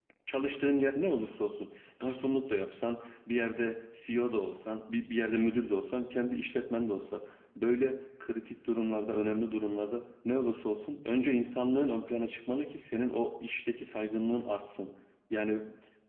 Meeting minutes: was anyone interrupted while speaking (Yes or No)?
No